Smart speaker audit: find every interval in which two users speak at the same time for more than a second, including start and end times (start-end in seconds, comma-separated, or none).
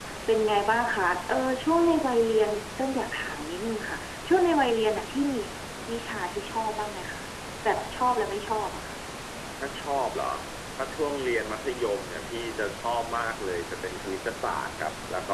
none